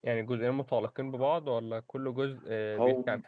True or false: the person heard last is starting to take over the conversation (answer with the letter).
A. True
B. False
A